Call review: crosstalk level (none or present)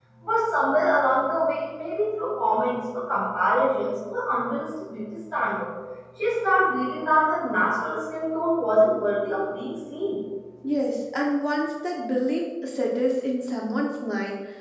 none